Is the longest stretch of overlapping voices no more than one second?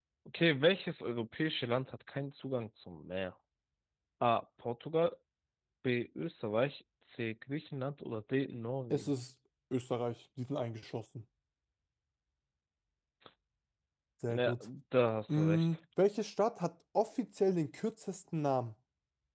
Yes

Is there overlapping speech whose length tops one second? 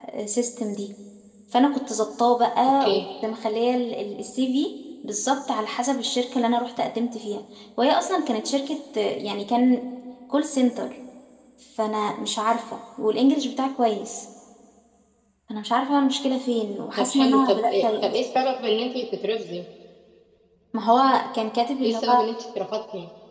Yes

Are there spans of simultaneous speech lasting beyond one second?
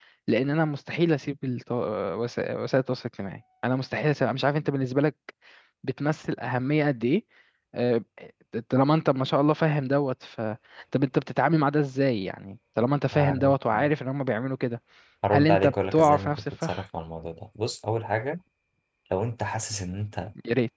Yes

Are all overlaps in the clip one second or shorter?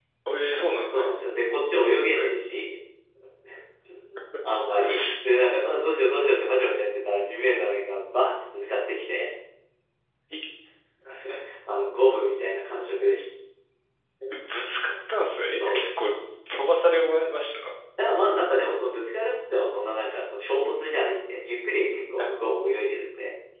Yes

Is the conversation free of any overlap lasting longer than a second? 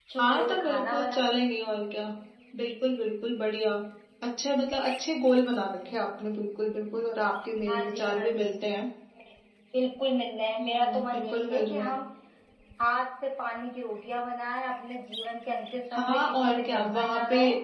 No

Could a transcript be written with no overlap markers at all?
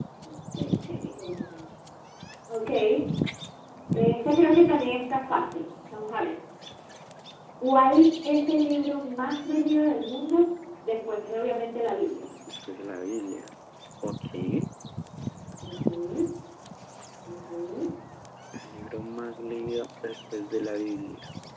Yes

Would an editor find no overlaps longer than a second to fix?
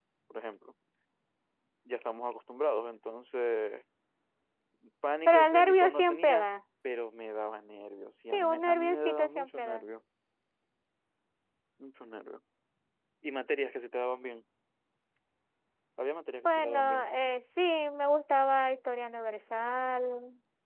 No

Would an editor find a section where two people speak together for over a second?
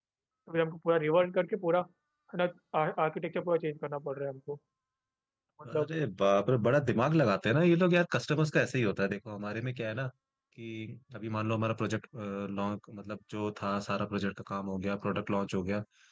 No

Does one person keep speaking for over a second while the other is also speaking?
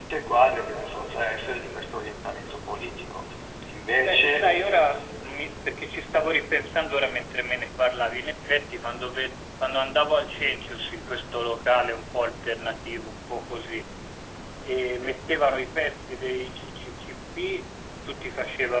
No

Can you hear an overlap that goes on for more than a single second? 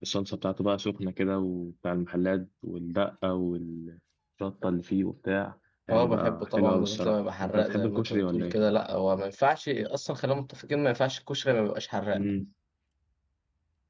Yes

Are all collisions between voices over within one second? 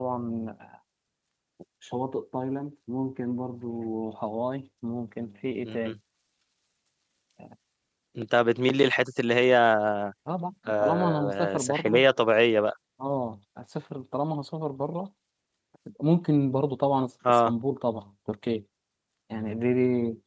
No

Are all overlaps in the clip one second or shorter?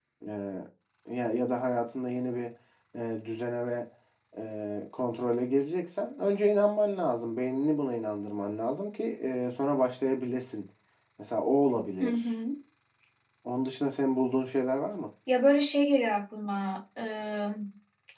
Yes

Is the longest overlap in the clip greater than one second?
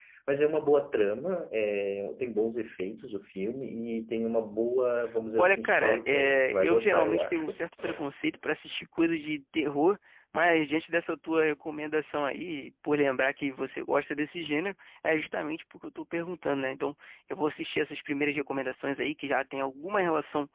Yes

